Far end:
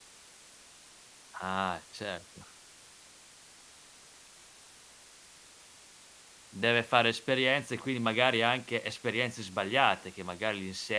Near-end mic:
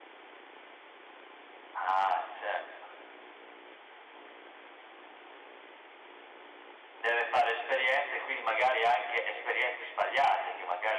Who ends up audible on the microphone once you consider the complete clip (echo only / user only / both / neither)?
echo only